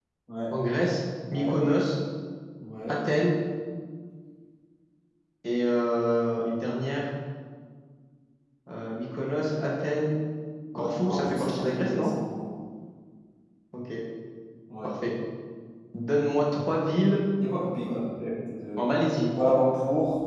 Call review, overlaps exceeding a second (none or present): present